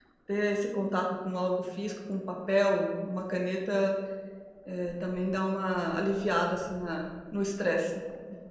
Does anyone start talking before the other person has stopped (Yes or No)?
No